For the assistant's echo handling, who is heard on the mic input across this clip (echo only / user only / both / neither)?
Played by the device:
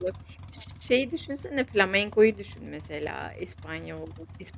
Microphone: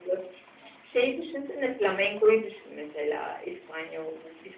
echo only